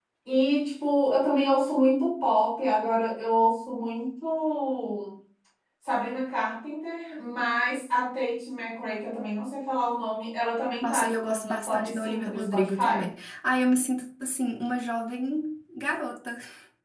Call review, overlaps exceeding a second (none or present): present